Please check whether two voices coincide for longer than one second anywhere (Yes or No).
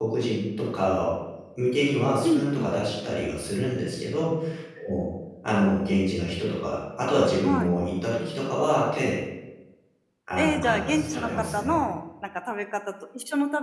Yes